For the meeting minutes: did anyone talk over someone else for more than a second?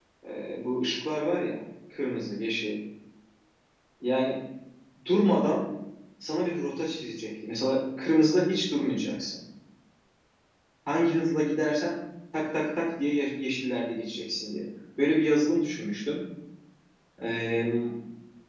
No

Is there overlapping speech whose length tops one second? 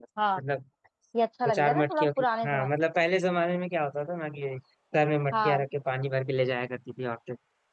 Yes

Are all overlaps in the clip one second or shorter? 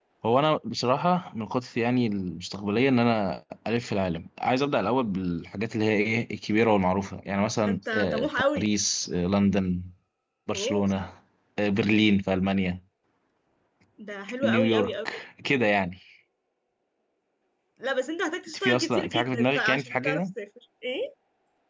No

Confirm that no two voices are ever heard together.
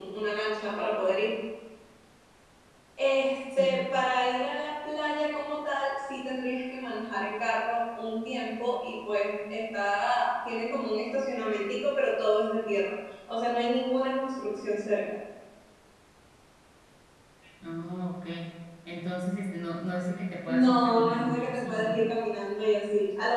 No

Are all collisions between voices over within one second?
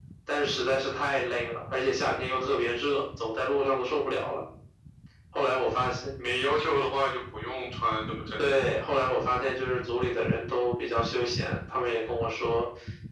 Yes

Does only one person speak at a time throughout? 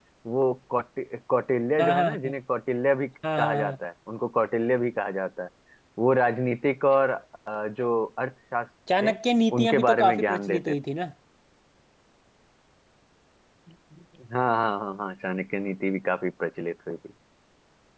No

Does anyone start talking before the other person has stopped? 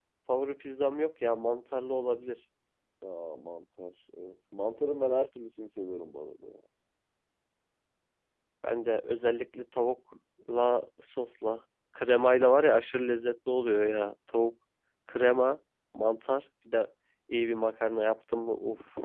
No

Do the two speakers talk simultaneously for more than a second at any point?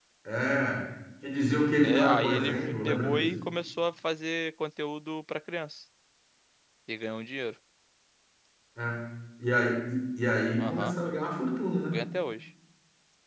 Yes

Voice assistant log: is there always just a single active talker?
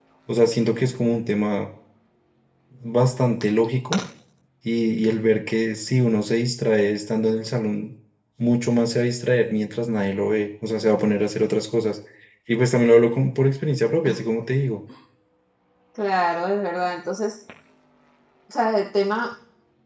Yes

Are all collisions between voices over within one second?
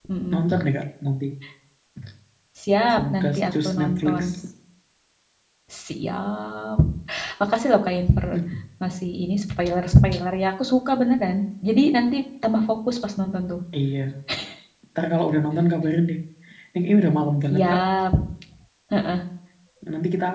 No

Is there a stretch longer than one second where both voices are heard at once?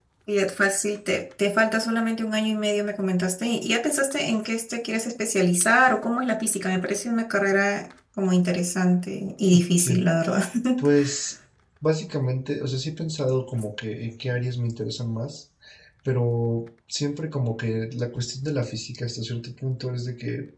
No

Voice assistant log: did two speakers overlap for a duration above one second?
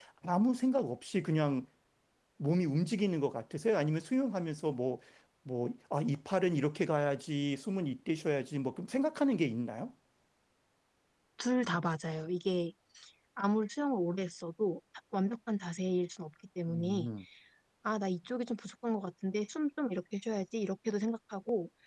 No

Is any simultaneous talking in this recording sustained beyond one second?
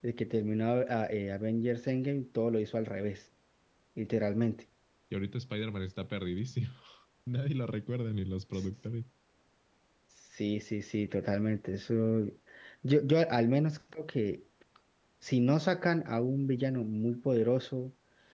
No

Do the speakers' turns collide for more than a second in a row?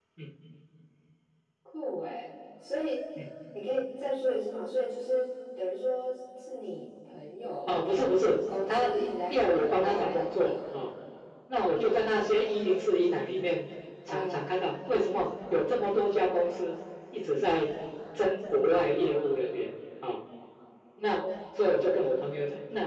Yes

